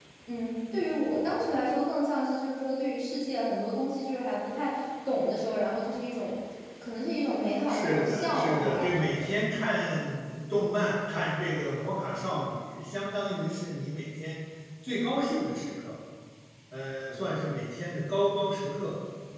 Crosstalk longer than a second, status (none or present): present